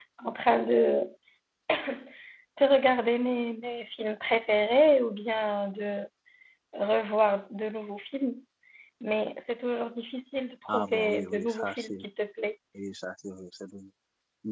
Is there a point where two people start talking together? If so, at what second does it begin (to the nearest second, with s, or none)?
11 s